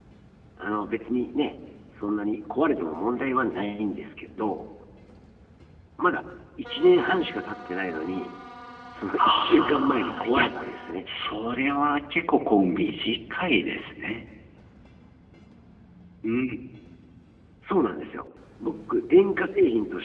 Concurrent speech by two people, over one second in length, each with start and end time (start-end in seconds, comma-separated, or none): 9.2-10.5